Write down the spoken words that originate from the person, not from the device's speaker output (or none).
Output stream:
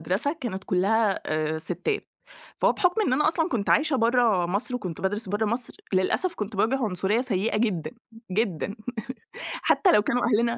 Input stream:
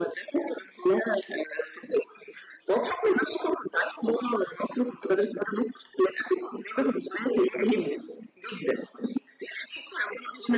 none